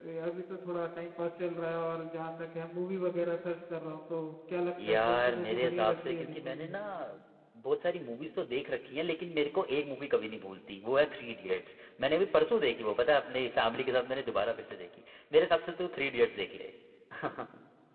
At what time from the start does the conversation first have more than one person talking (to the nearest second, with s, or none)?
5 s